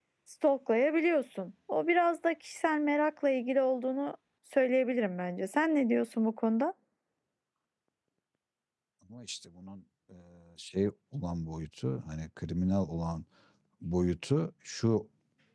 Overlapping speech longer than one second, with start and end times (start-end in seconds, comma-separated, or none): none